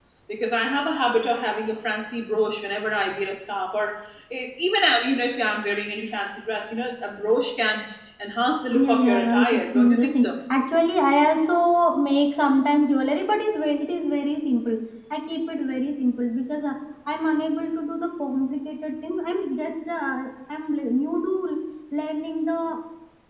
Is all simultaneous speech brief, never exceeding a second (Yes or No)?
No